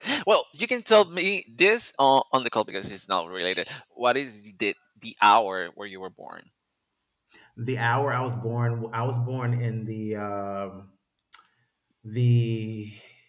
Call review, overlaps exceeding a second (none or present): none